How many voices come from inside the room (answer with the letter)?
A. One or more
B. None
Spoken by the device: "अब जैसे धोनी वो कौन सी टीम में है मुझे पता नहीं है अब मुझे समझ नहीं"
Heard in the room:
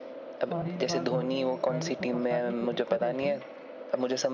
A